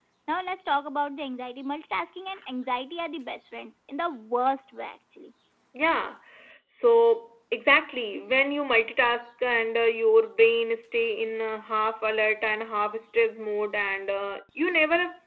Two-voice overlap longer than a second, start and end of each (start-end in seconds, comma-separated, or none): none